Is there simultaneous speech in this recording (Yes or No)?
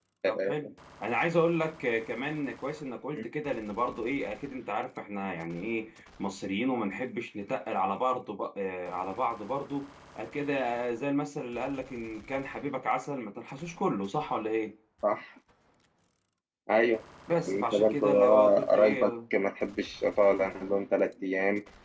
Yes